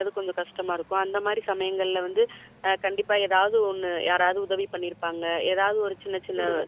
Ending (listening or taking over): listening